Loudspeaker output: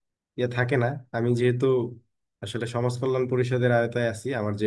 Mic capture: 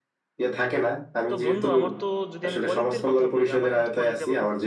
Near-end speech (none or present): present